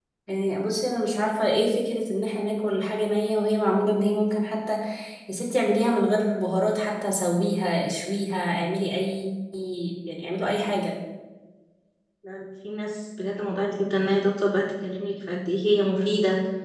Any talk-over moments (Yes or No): No